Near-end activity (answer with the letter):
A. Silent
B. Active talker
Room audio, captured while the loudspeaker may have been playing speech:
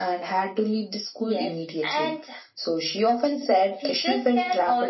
A